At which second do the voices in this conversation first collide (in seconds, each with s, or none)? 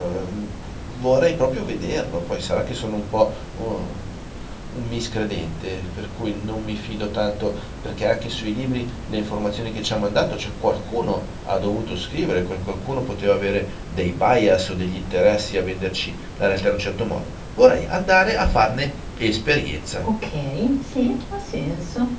none